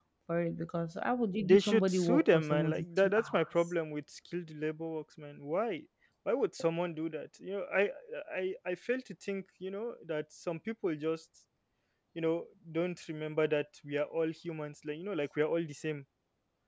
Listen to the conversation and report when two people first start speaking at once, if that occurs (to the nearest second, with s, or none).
1 s